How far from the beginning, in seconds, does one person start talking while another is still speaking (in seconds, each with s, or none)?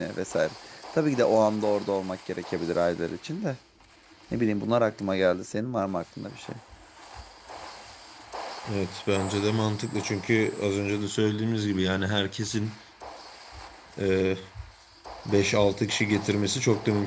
none